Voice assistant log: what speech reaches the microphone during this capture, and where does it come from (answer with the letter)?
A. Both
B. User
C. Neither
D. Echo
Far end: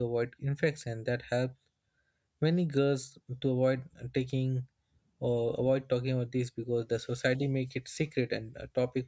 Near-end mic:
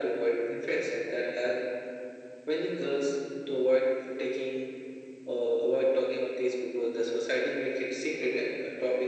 D